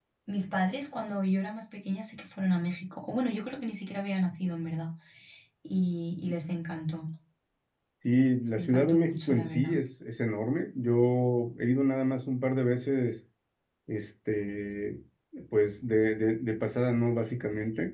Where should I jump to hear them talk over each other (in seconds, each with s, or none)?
8.6 s